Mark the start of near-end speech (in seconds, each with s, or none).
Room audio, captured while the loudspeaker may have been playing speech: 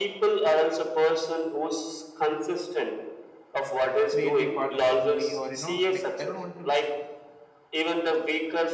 4.1 s